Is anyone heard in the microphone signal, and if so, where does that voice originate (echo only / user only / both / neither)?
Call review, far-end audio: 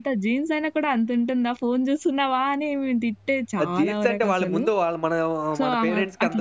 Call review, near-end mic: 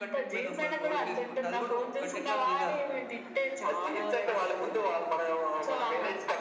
both